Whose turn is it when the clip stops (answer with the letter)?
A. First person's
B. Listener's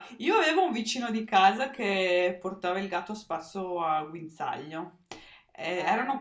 A